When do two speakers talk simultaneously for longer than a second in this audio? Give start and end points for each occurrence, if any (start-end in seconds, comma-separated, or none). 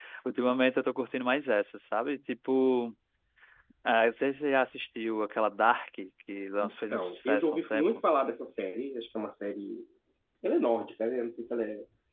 6.6-7.8